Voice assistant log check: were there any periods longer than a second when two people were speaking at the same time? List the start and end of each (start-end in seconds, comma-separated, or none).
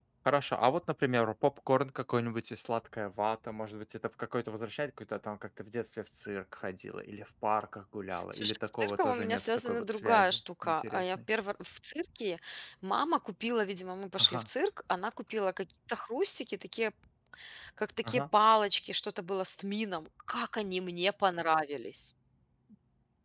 8.3-11.2